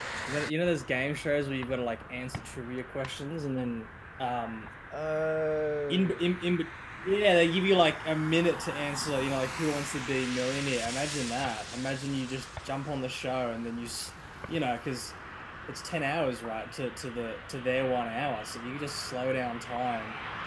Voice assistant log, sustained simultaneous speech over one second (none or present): none